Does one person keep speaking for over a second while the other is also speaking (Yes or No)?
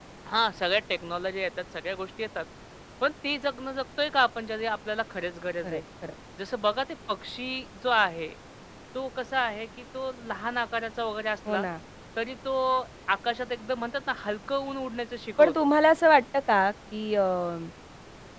No